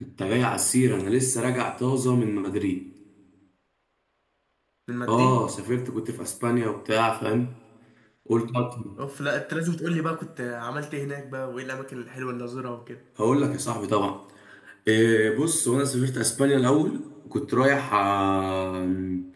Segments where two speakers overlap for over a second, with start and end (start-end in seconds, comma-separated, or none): none